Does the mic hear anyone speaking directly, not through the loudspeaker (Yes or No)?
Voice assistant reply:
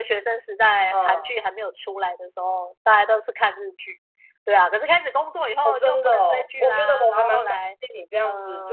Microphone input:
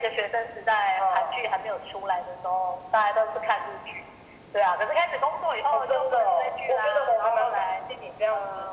No